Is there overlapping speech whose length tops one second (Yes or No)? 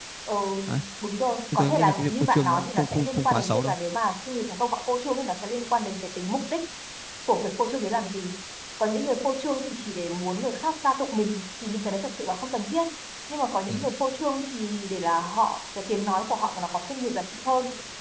Yes